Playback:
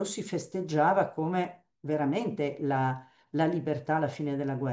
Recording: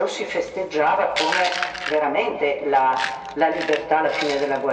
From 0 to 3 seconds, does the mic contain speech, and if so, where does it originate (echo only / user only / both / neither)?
echo only